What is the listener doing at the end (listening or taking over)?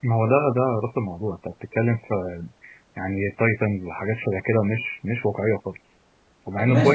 taking over